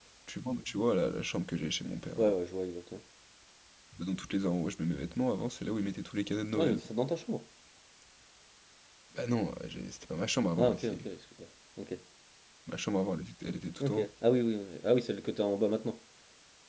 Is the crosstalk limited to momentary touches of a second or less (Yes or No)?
Yes